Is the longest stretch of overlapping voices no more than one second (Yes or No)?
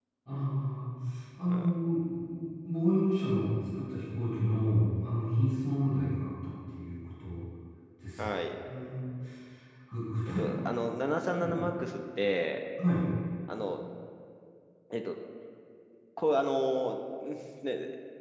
Yes